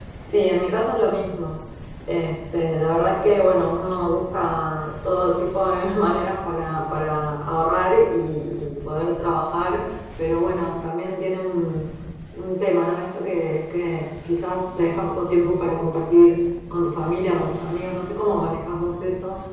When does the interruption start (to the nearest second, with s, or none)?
none